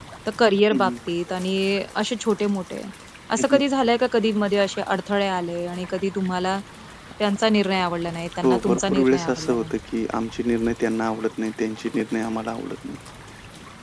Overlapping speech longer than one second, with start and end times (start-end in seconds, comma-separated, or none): 8.4-9.8